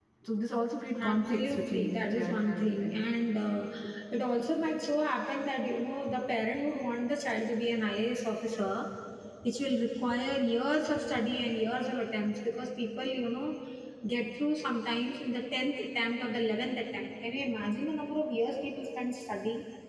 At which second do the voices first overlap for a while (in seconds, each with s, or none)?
1.0 s